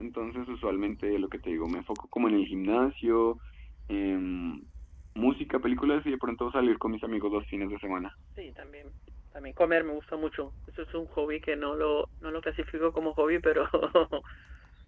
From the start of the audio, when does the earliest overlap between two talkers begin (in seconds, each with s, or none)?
none